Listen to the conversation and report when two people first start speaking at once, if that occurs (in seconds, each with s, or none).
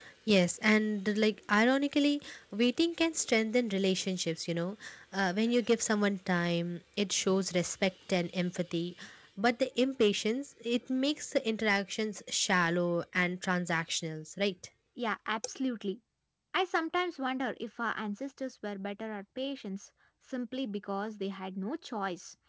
none